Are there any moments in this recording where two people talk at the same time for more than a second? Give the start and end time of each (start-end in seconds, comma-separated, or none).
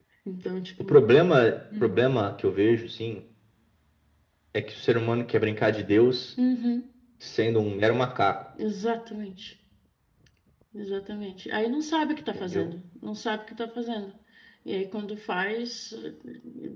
none